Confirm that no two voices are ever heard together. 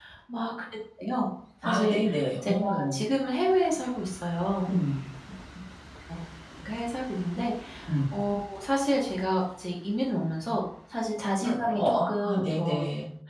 No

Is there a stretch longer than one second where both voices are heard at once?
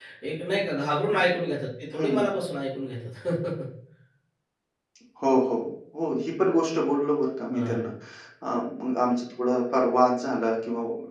No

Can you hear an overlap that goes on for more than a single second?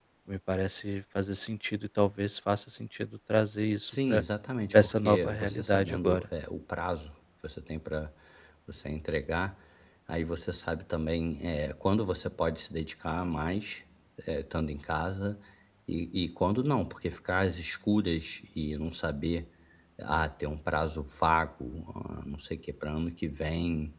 Yes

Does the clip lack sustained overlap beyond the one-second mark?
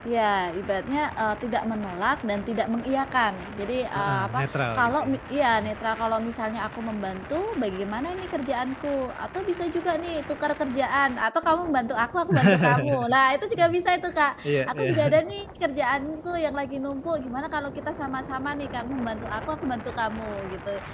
No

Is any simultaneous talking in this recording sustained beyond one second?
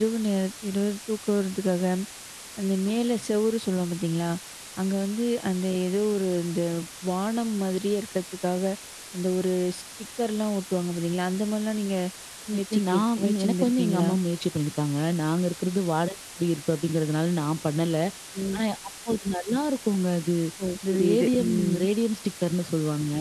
Yes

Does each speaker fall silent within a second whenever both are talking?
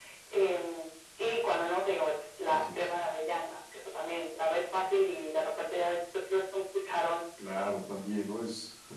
Yes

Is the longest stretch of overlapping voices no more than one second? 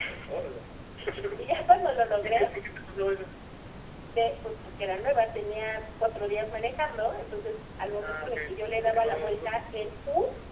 No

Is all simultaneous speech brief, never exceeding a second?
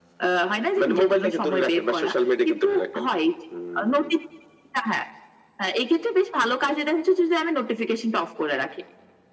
No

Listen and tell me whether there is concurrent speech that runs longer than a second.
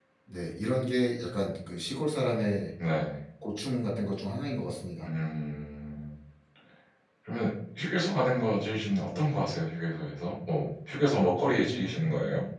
No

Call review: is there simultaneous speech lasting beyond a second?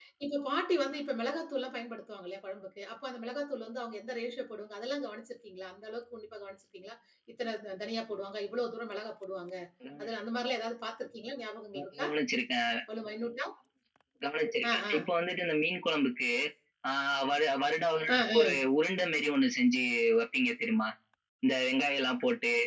No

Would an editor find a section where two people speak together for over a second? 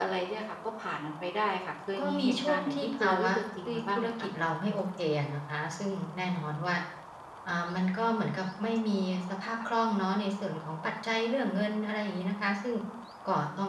Yes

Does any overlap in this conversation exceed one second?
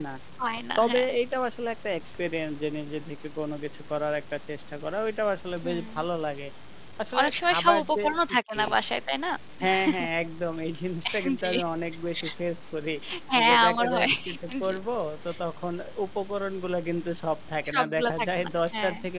Yes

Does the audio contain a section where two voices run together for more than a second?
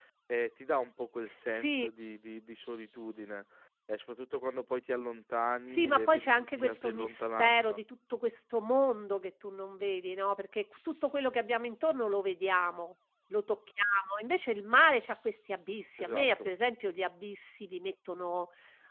Yes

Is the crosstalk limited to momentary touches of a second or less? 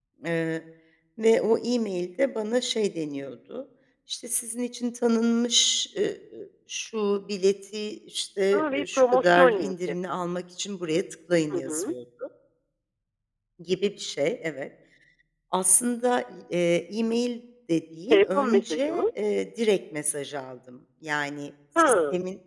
No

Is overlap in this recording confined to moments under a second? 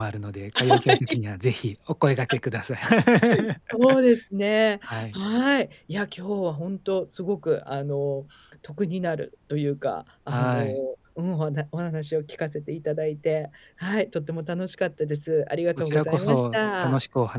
No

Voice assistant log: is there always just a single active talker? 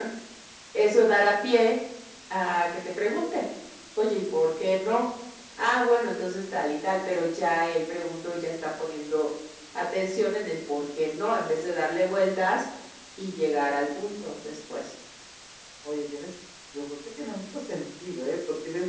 Yes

